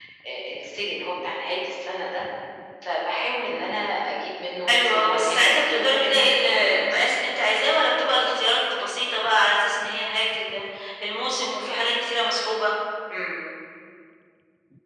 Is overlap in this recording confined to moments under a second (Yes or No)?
No